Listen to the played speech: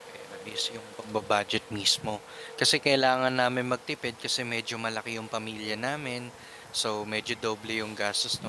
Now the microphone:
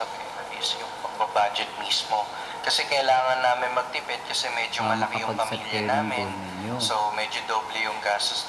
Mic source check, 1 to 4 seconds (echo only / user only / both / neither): echo only